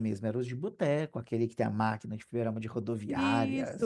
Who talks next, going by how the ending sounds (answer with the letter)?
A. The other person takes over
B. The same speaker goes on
A